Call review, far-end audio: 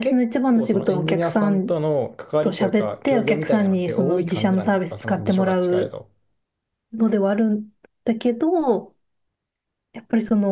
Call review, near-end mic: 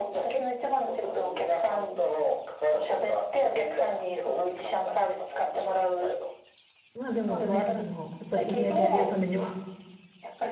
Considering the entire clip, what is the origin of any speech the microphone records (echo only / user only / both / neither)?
both